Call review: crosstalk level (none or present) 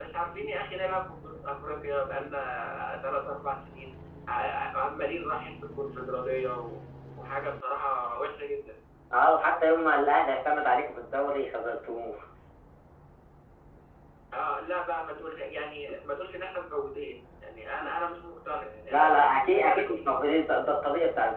present